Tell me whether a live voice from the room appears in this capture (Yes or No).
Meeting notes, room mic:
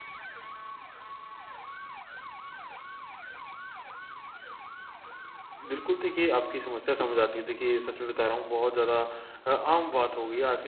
Yes